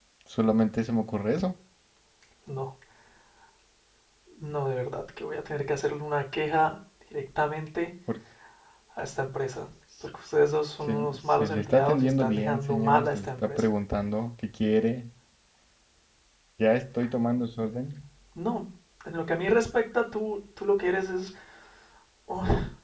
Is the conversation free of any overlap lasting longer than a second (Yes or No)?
No